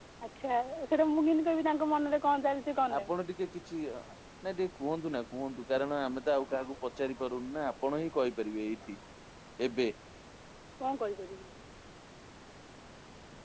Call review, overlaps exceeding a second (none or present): none